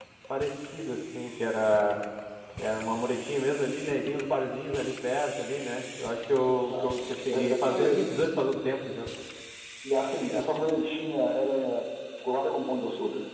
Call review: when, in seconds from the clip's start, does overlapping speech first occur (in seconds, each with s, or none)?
6.7 s